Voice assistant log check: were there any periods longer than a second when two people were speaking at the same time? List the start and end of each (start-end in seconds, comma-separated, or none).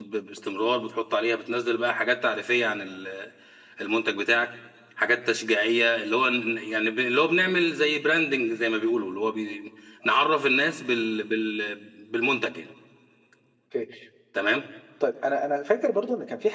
none